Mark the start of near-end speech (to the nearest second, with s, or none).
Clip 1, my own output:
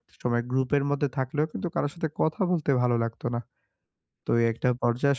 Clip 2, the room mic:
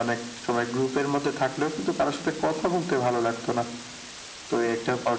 none